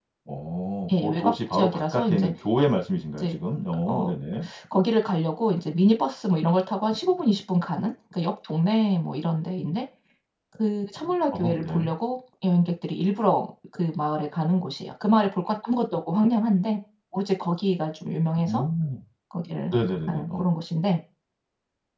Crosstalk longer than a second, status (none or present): present